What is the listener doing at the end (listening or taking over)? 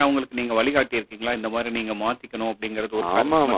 taking over